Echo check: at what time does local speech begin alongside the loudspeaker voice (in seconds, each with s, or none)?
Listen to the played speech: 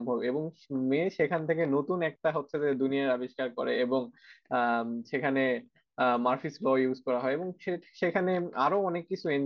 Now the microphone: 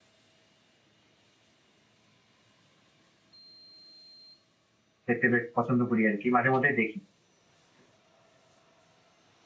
5.1 s